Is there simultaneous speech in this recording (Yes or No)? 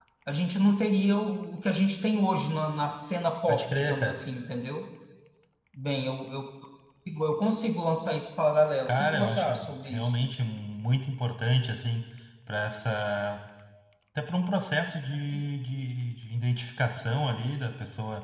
Yes